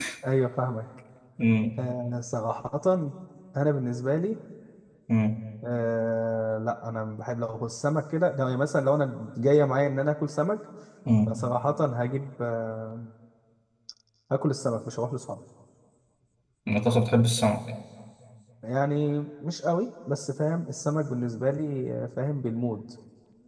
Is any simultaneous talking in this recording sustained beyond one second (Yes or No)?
No